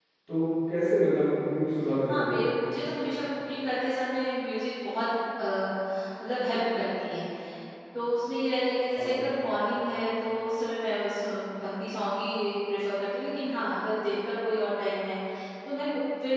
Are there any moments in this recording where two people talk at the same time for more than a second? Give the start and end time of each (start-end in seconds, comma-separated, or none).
none